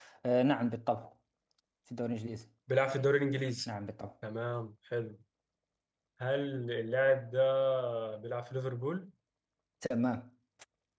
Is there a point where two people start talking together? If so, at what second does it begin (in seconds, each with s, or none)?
none